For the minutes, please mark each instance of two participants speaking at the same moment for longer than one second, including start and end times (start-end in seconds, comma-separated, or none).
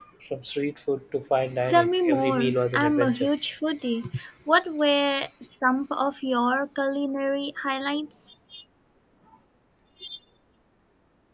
1.7-3.3